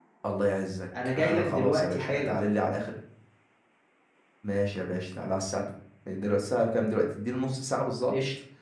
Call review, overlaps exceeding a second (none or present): present